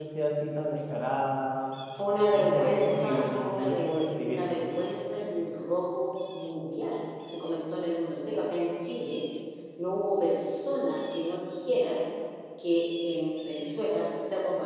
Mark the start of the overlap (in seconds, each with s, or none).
2.3 s